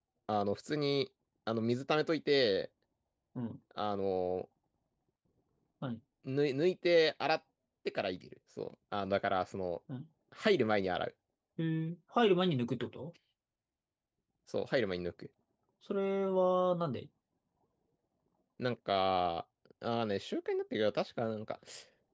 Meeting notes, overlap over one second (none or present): none